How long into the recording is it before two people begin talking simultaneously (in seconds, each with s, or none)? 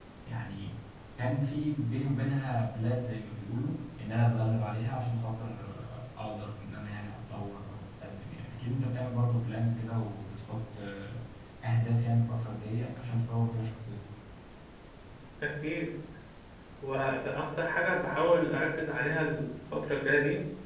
none